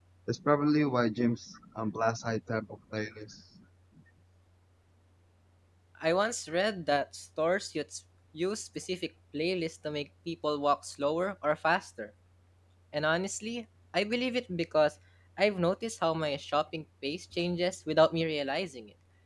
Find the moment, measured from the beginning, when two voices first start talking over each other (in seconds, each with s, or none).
none